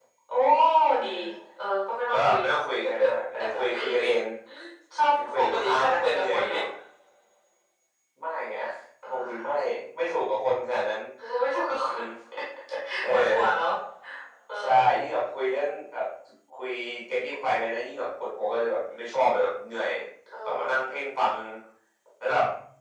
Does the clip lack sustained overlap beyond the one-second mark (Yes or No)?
No